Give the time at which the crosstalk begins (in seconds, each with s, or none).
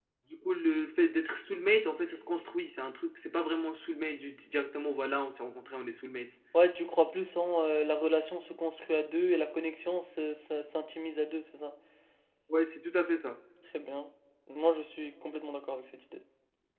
none